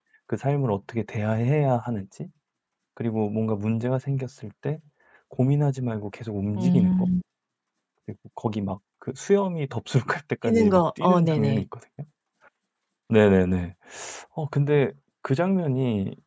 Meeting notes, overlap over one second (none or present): present